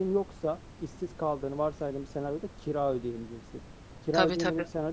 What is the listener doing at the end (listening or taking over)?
listening